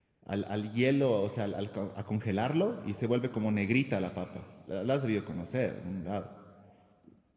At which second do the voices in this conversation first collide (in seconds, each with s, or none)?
none